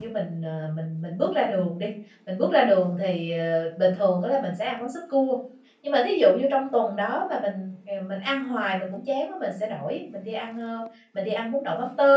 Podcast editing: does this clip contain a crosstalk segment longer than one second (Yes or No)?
No